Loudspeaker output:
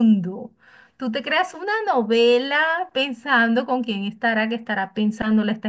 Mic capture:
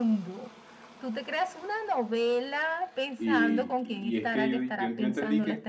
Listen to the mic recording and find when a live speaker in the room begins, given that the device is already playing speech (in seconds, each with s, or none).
3.2 s